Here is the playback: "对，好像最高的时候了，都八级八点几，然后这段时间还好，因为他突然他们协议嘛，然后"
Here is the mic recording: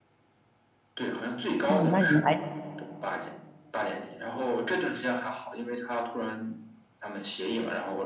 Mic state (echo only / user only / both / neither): both